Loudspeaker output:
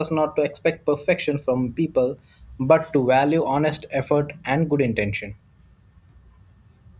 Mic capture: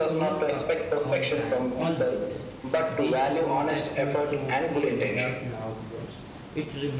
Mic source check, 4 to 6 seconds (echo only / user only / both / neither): both